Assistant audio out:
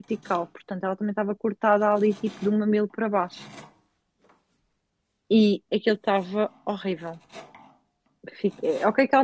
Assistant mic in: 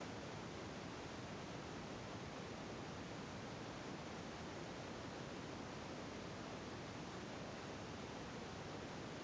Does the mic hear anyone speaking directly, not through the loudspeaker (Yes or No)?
No